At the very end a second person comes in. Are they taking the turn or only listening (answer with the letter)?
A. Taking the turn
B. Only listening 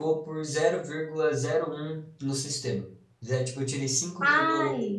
B